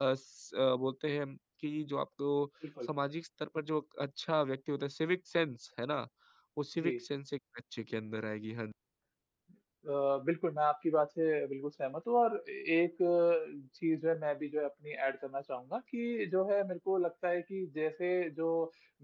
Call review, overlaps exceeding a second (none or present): none